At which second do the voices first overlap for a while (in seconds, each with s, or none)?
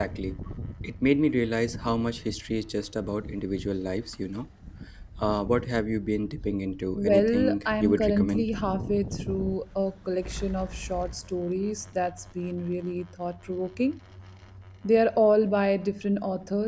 7.0 s